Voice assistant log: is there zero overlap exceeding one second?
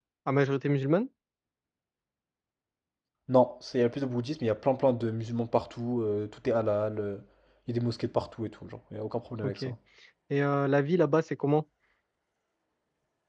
Yes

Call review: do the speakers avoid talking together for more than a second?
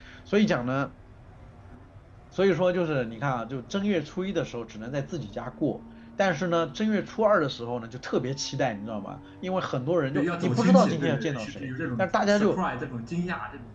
No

